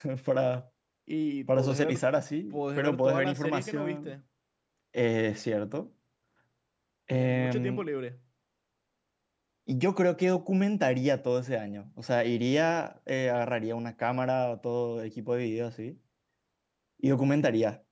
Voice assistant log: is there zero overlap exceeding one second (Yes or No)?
No